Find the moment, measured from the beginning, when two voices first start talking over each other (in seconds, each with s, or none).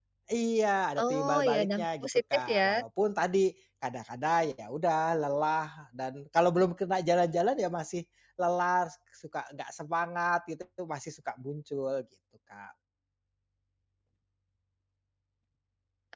1.0 s